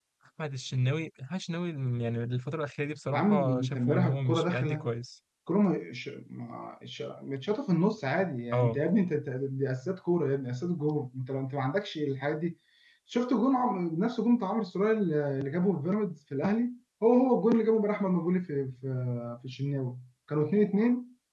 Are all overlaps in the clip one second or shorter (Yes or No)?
No